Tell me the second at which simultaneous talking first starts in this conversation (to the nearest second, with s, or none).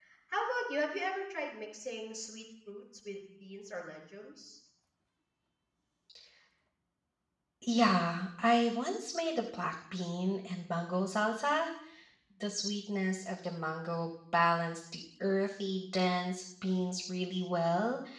none